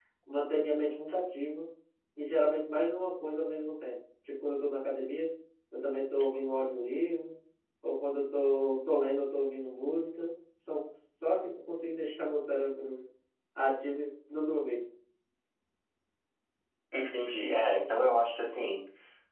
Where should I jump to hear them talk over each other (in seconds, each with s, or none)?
none